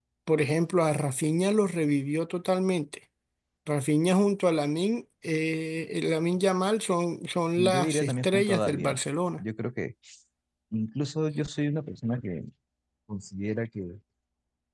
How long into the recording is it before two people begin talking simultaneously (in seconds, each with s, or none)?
7.5 s